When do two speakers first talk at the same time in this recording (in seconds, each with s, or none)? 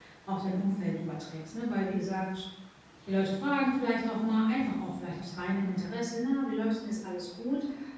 none